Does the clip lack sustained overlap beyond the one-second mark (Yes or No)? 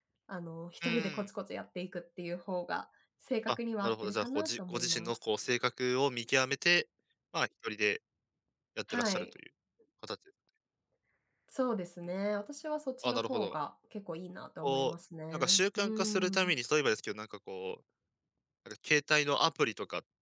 No